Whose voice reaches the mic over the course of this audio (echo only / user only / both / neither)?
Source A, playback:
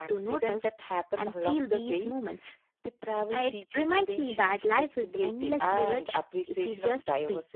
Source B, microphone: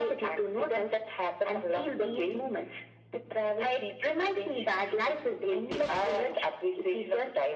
echo only